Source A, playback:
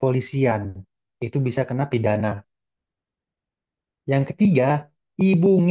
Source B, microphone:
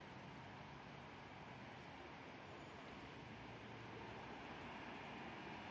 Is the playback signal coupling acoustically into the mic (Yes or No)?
No